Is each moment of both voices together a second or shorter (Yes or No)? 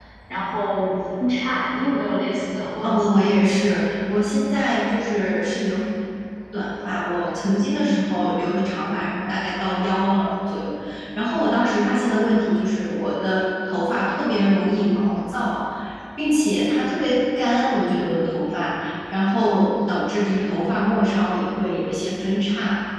Yes